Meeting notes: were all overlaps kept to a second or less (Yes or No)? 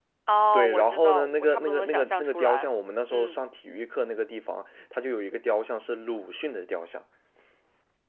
No